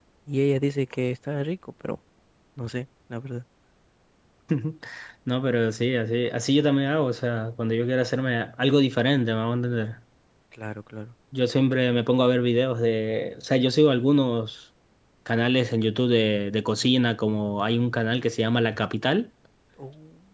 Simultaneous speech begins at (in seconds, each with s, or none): none